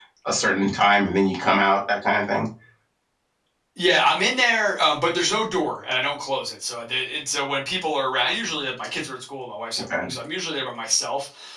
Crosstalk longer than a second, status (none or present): none